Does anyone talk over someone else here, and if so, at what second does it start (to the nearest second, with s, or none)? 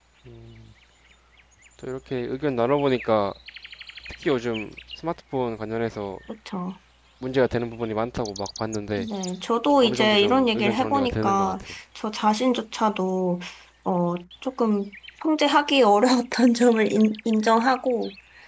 10 s